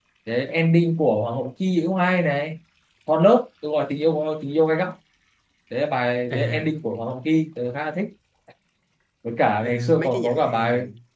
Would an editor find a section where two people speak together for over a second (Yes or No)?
Yes